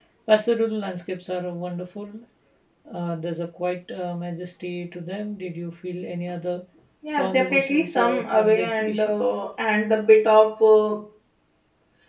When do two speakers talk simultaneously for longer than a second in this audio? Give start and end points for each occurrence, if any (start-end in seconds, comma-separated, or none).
7.1-9.1